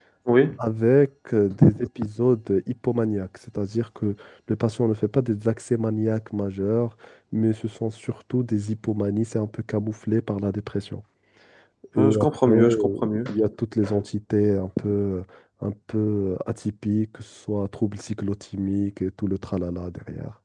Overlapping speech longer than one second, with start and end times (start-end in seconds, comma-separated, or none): 12.0-13.2